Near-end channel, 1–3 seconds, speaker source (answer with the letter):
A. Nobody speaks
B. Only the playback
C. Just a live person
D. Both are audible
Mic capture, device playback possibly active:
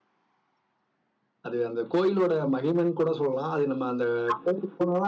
B